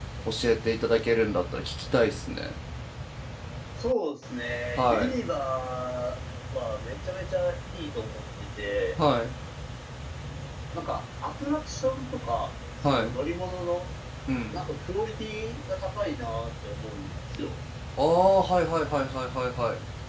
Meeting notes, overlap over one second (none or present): none